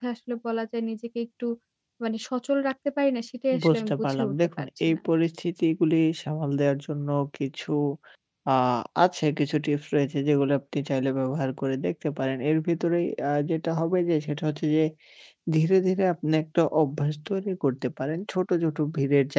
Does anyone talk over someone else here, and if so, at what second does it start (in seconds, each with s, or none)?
3.5 s